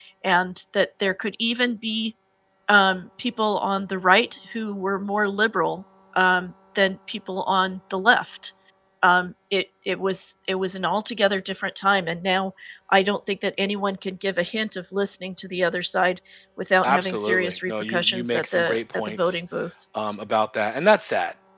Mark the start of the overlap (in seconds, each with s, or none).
16.8 s